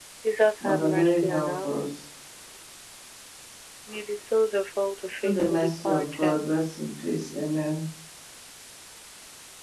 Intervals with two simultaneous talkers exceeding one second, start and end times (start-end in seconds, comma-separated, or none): 0.6-1.8, 5.2-6.5